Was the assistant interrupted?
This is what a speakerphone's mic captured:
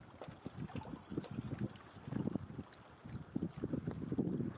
No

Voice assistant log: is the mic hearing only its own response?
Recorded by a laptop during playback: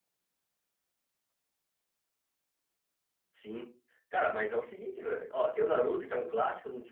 No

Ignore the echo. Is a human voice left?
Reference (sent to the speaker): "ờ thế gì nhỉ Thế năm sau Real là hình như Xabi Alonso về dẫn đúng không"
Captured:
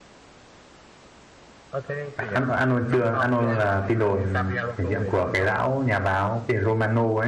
Yes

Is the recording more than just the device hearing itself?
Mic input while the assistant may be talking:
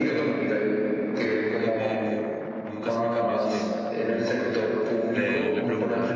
Yes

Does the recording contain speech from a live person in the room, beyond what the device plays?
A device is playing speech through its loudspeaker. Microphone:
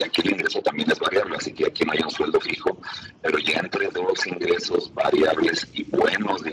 No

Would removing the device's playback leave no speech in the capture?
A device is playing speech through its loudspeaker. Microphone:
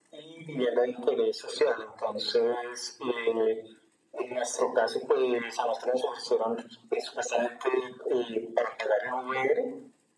Yes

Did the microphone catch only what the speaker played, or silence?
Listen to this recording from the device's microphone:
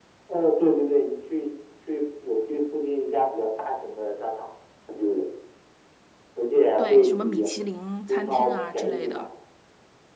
No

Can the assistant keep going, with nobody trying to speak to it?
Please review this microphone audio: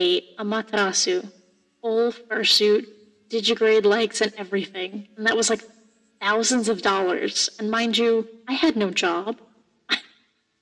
Yes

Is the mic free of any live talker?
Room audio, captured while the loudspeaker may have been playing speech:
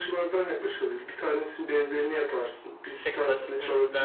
No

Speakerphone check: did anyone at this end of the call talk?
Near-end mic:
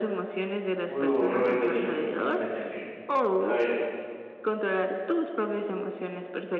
Yes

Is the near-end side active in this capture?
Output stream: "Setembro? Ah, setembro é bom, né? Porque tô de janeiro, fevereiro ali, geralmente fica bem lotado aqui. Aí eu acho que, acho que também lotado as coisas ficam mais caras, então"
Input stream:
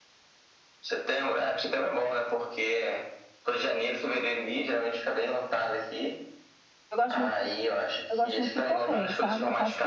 Yes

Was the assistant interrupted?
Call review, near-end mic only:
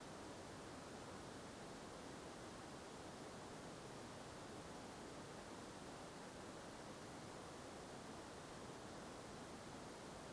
No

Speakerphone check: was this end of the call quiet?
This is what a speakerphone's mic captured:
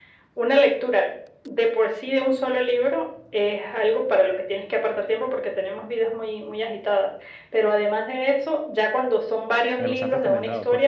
No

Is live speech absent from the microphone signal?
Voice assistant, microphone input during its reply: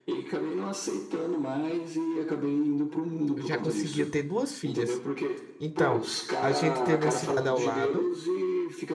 No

